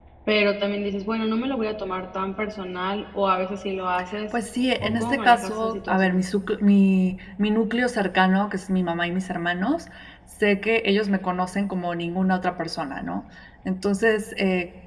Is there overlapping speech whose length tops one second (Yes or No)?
Yes